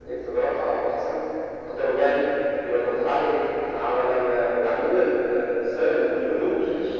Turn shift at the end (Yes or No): No